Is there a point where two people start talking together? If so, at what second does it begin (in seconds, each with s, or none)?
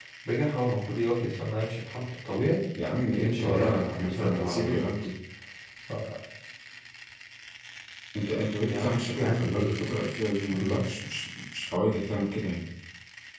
3.1 s